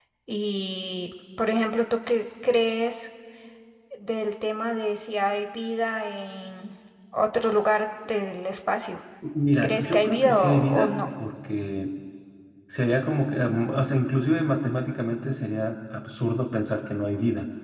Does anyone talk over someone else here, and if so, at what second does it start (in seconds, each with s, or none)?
9.6 s